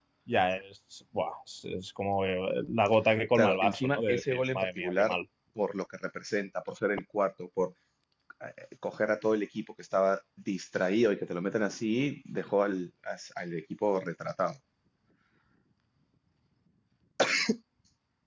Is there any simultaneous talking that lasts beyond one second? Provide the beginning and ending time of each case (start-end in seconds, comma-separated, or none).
3.4-5.2